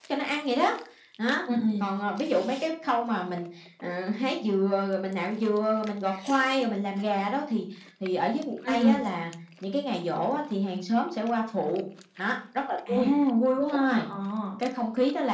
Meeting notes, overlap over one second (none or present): none